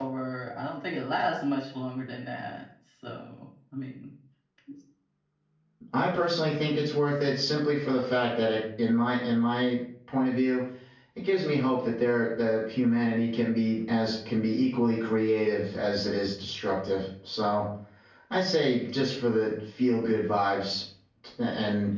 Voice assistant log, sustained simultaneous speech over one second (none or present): none